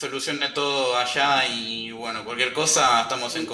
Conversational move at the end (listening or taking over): taking over